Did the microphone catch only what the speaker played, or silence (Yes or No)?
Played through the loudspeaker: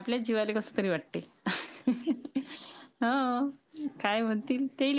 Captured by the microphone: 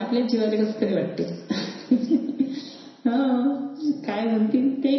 Yes